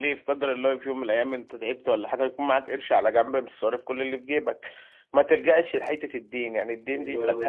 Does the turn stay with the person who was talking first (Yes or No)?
Yes